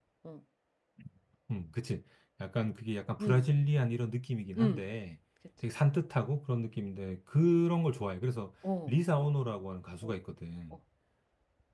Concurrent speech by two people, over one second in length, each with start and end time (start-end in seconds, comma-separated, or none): none